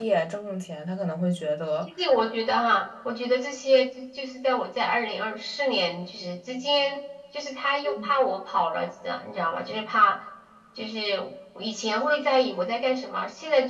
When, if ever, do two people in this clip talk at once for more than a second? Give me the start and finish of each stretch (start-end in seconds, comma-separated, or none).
none